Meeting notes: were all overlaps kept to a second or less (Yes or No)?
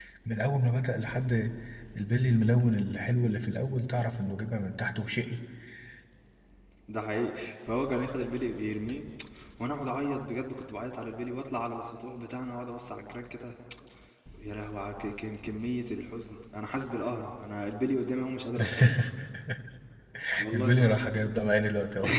Yes